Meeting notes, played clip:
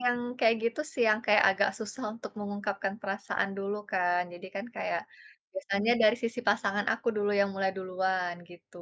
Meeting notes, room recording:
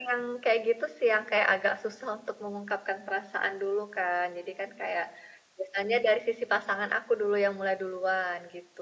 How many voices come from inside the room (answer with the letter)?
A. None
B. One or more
A